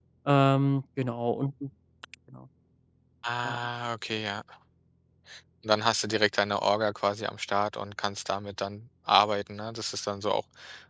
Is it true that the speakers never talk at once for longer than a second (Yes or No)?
Yes